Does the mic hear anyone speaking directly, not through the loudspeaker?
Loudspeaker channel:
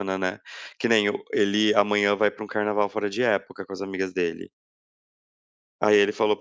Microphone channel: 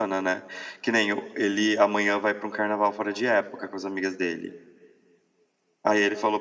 No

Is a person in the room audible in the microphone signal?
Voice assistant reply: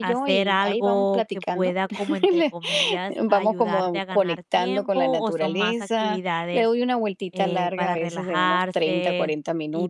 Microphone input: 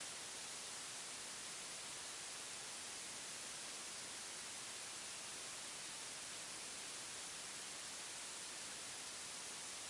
No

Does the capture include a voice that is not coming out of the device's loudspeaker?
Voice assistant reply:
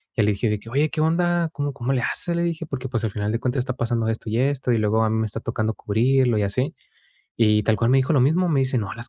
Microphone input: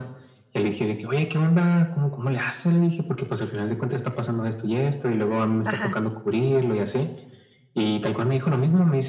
Yes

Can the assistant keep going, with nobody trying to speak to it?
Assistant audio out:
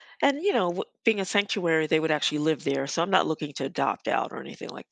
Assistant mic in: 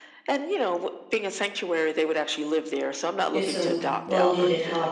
No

